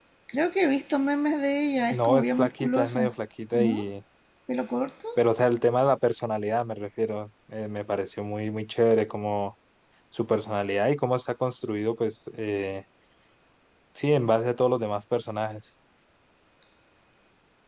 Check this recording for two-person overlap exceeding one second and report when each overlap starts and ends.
1.9-3.1

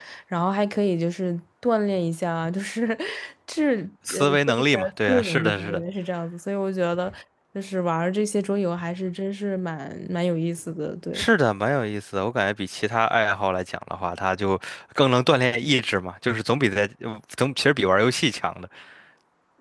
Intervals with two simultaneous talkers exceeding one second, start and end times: 4.1-5.8

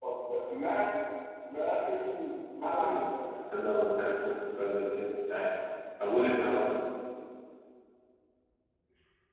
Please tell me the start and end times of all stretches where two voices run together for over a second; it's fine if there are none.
none

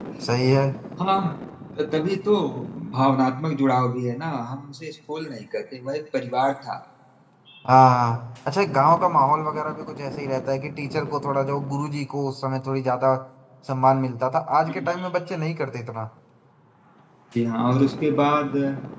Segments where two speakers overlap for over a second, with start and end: none

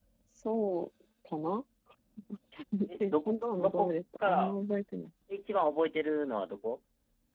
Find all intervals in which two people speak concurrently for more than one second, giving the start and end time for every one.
3.1-4.5

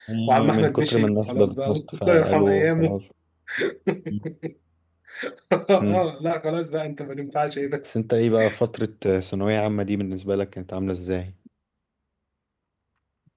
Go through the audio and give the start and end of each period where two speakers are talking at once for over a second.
0.5-3.0

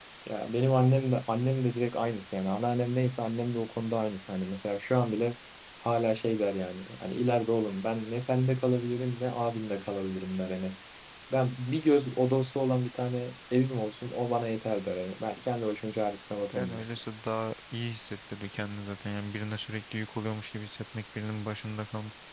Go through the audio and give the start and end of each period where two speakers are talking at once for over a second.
none

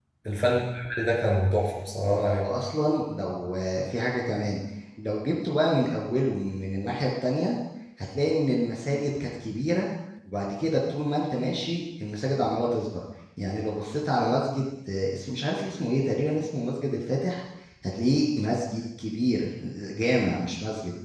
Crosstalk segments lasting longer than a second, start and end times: none

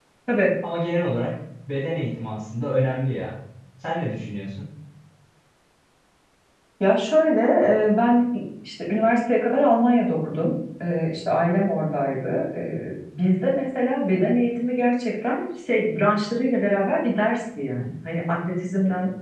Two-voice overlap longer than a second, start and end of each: none

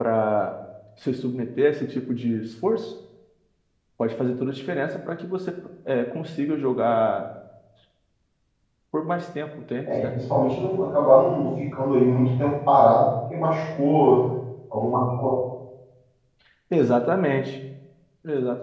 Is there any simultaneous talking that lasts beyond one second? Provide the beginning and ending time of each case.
none

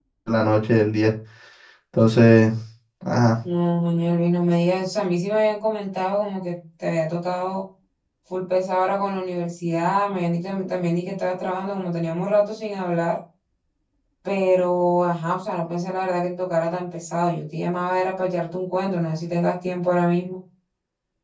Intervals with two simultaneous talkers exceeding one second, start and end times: none

